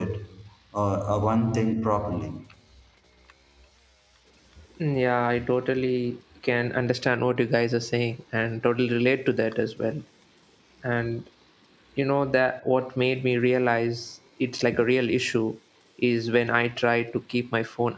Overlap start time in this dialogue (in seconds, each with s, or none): none